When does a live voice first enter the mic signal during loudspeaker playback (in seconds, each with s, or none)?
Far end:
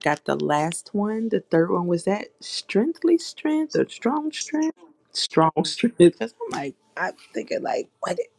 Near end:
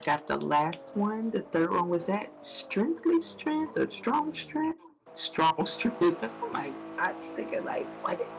none